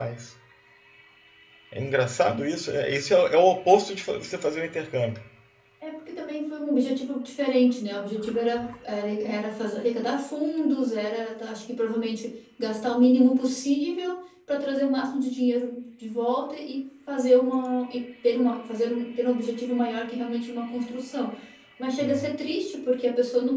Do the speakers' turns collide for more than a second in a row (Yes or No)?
No